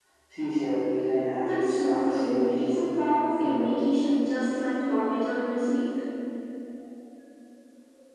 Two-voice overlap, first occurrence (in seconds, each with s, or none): 1.4 s